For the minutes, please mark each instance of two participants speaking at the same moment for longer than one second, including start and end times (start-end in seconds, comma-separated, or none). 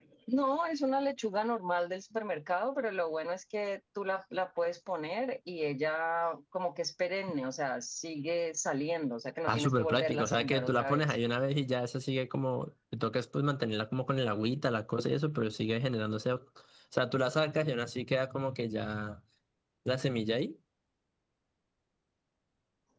9.5-11.1